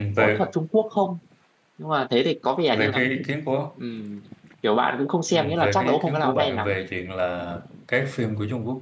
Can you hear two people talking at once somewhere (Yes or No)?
Yes